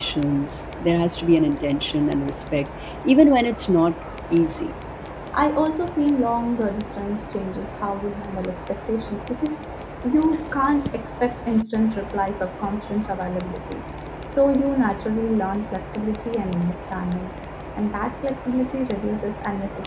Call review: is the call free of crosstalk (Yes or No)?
Yes